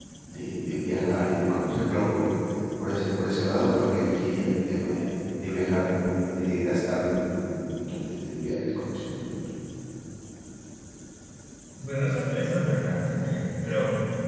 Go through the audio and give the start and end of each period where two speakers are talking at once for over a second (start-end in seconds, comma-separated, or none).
none